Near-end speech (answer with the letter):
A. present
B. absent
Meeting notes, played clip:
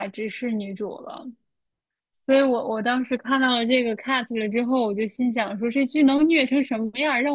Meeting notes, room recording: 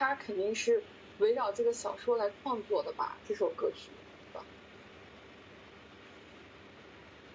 A